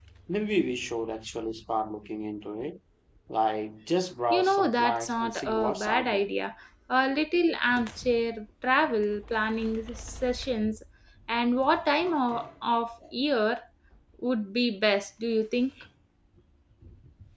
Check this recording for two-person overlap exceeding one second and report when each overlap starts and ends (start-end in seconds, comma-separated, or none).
4.3-6.2